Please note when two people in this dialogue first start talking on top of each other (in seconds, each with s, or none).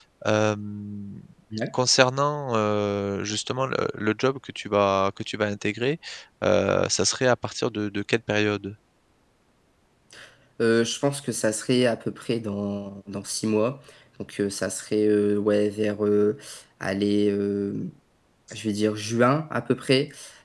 none